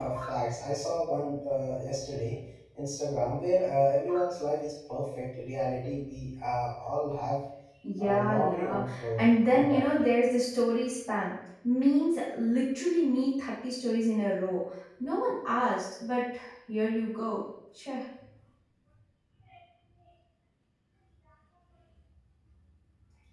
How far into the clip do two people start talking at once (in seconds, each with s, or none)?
8.0 s